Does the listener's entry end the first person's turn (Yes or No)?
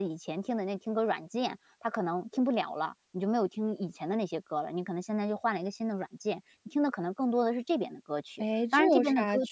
Yes